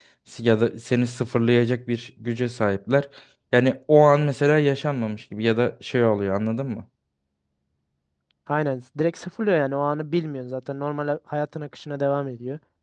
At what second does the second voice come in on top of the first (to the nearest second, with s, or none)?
none